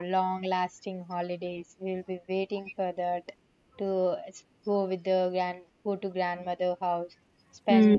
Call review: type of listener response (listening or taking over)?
listening